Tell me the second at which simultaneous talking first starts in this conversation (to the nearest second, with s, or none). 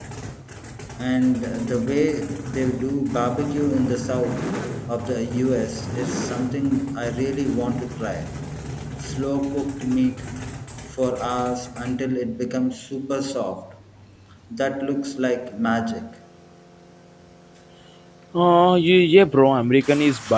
none